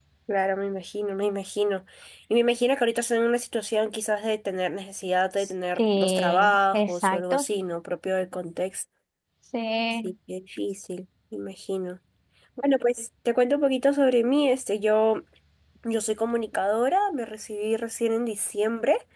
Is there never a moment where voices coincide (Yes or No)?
No